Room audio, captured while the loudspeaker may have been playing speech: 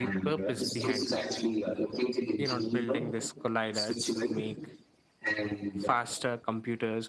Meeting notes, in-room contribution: present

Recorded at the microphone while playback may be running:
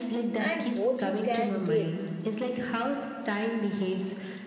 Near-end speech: present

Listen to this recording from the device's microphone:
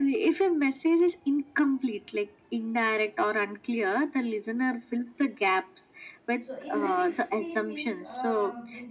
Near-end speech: present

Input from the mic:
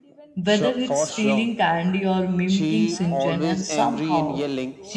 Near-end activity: present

